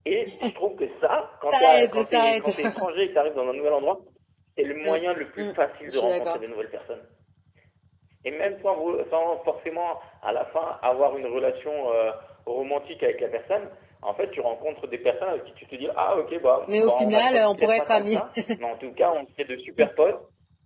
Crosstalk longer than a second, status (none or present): present